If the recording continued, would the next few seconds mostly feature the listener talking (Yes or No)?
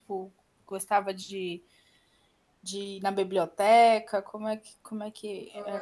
Yes